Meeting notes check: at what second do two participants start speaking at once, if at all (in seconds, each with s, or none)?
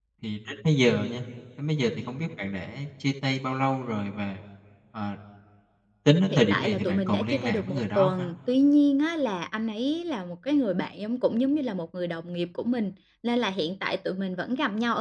6.3 s